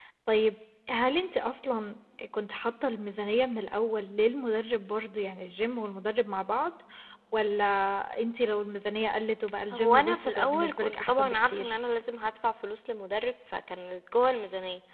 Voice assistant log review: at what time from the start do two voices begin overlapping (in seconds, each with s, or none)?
9.7 s